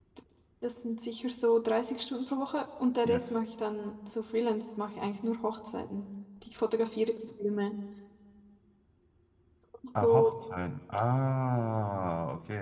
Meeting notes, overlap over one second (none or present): none